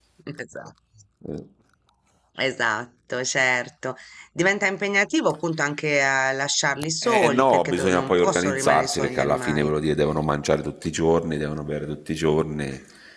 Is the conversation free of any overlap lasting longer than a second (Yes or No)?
No